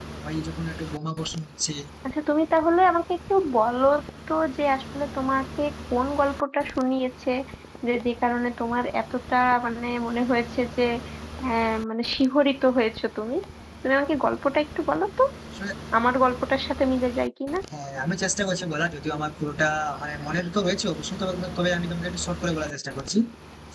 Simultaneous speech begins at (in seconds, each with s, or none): none